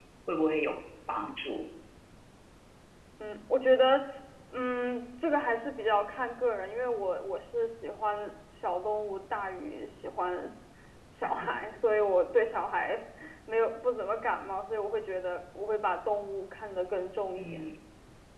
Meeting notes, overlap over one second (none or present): none